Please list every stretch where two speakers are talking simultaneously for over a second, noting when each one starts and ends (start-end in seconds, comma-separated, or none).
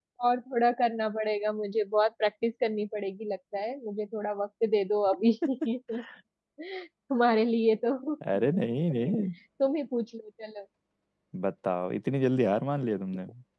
none